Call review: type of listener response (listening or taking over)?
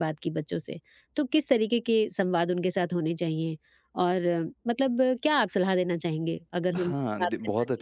taking over